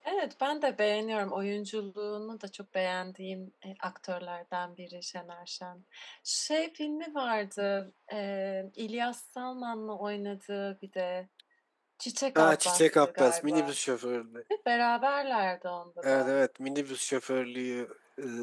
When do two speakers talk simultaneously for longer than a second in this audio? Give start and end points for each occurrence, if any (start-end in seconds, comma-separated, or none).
12.3-13.8